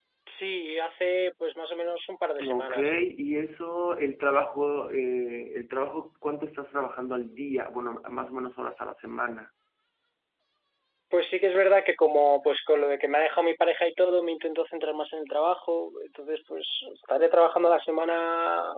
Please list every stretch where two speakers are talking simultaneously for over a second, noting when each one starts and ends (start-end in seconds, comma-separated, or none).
none